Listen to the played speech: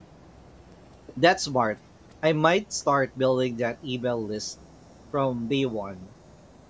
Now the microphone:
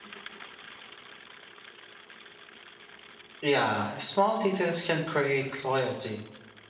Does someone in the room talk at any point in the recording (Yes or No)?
Yes